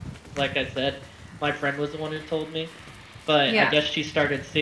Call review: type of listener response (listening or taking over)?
listening